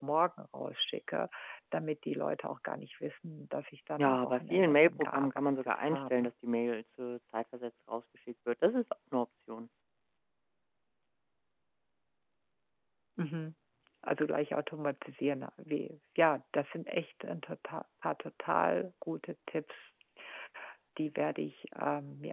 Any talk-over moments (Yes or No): Yes